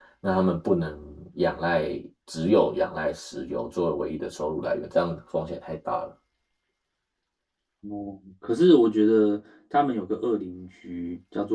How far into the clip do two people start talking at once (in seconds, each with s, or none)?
none